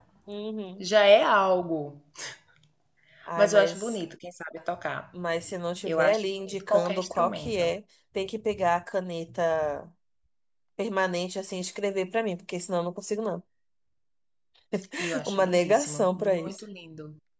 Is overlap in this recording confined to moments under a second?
No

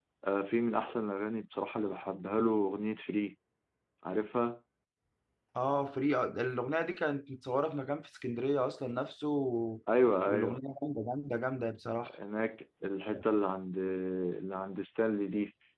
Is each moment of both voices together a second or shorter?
Yes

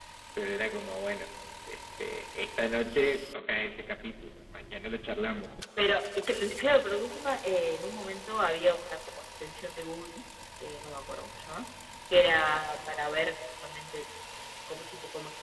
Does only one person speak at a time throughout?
Yes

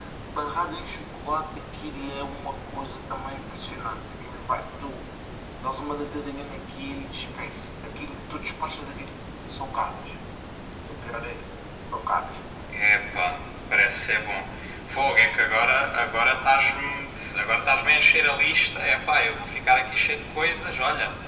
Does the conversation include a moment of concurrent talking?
No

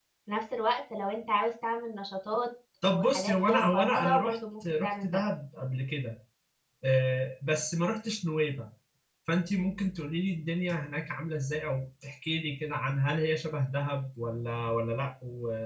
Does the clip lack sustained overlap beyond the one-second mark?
No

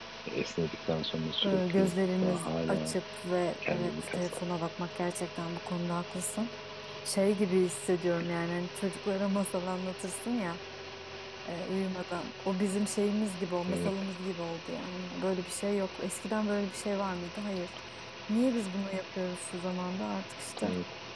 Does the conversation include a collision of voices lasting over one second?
Yes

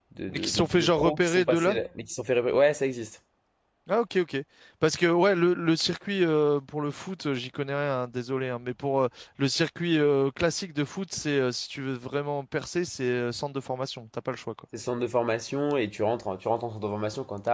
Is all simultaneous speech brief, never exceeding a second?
No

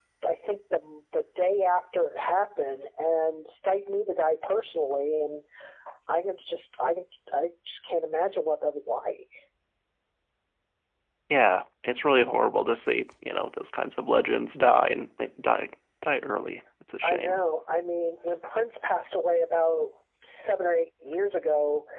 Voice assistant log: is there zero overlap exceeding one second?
Yes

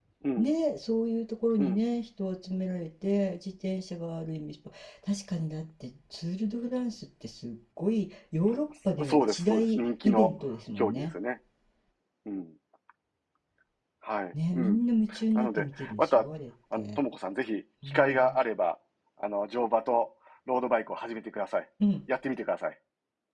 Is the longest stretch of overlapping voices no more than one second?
No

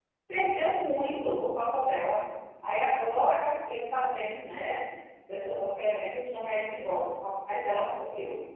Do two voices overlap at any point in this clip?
No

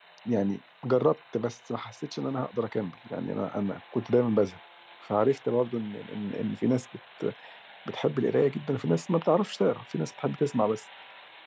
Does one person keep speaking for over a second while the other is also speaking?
No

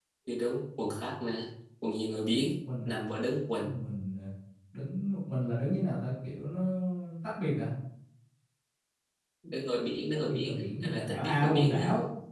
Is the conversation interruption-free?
No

